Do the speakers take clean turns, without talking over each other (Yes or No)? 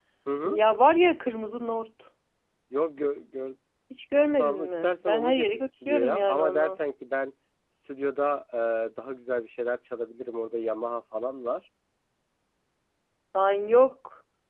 No